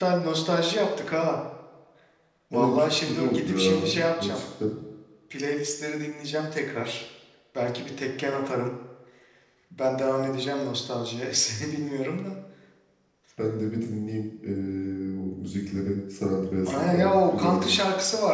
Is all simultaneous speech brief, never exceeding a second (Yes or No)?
No